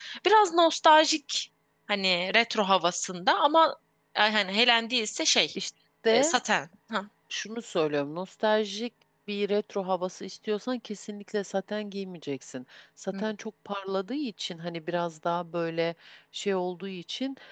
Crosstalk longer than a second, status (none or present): none